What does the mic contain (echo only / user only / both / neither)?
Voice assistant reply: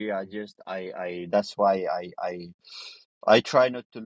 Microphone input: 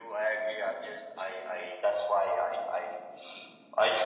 echo only